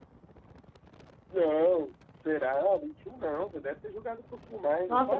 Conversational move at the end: taking over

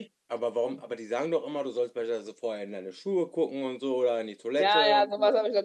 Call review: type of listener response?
taking over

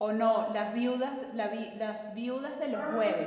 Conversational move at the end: taking over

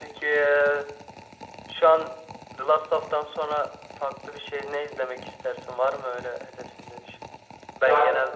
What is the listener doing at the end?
listening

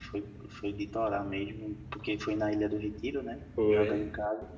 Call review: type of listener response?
listening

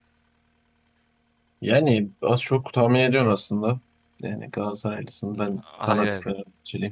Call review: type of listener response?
listening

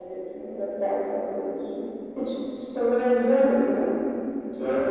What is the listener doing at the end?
taking over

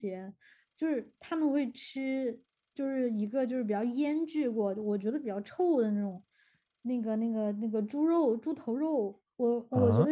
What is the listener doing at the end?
listening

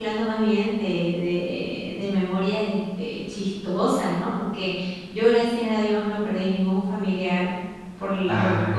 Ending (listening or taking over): listening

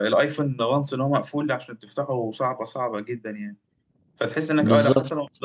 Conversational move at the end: listening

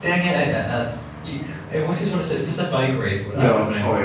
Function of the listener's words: taking over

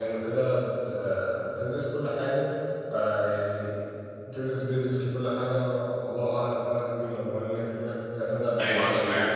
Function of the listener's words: taking over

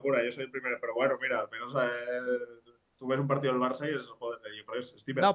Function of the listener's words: taking over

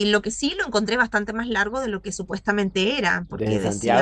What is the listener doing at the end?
listening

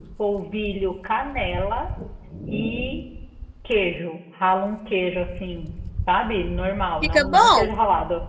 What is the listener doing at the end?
listening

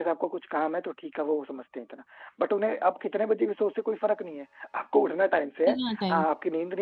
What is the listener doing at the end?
listening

